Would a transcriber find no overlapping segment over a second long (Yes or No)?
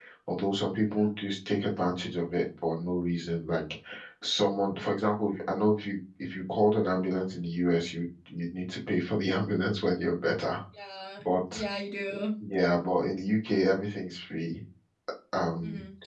Yes